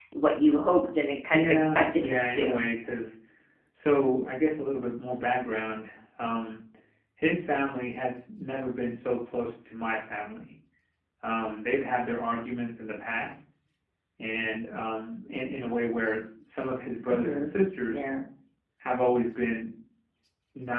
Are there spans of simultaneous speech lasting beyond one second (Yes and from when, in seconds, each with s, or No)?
Yes, from 1.3 s